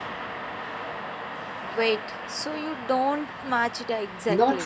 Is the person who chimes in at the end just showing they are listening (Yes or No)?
No